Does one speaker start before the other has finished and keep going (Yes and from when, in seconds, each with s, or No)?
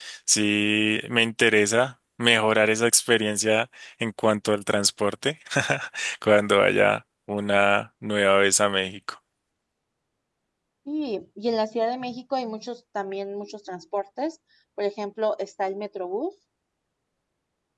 No